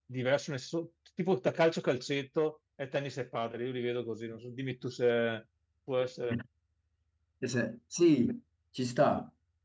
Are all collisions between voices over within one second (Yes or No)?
Yes